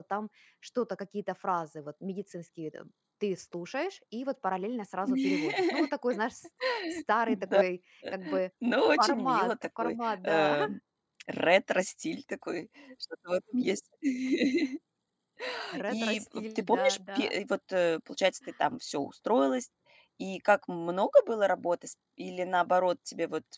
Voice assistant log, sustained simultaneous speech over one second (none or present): present